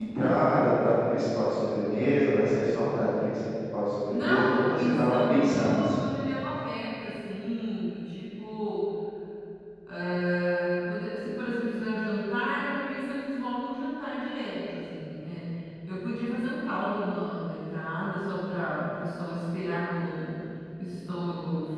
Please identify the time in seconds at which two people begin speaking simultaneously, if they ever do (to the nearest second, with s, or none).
4 s